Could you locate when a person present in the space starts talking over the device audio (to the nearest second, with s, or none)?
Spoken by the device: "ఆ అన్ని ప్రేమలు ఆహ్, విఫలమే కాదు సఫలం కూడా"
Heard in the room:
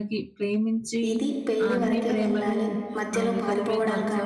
1 s